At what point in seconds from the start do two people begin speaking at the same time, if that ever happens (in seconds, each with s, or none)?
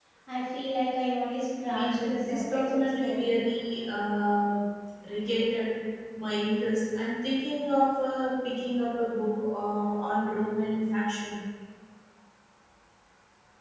1.7 s